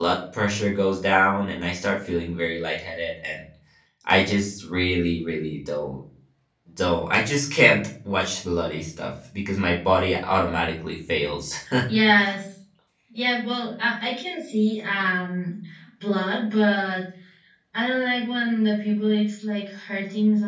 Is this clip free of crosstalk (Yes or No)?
Yes